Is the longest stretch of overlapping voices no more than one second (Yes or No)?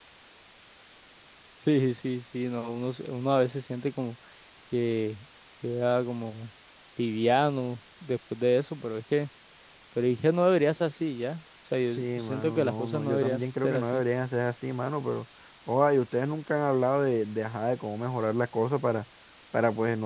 No